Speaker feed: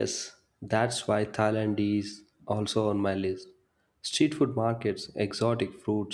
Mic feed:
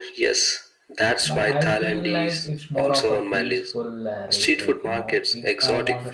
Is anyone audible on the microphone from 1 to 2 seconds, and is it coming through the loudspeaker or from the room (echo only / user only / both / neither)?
both